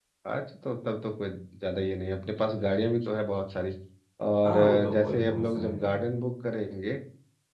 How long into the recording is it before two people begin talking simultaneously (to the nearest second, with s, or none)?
4 s